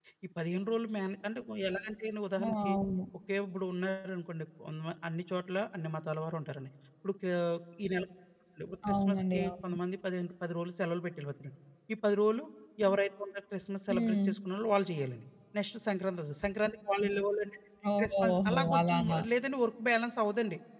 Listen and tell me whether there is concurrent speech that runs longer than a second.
Yes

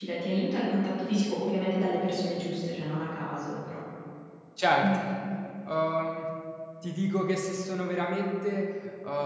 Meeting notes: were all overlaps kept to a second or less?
Yes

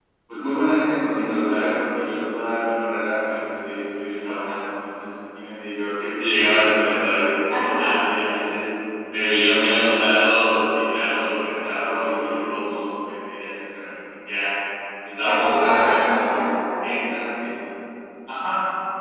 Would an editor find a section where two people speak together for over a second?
Yes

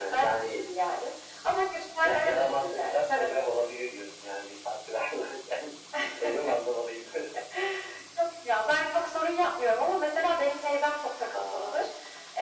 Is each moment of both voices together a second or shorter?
No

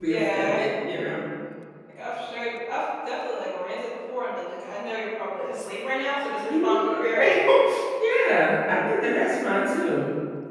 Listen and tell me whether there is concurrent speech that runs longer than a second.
No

